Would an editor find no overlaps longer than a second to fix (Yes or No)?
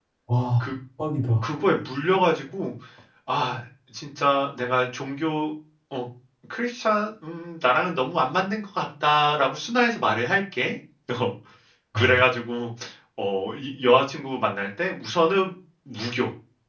Yes